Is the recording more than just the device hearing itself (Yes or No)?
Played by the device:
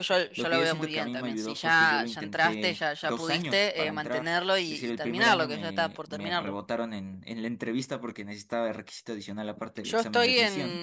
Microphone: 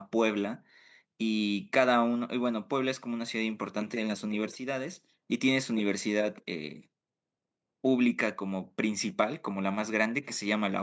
Yes